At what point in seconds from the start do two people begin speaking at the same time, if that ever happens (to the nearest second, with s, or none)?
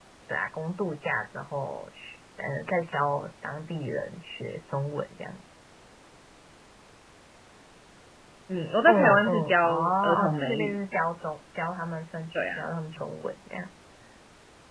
9 s